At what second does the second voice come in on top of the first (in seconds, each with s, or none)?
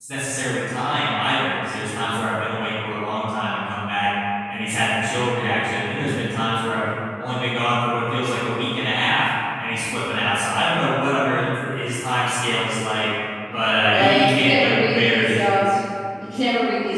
13.9 s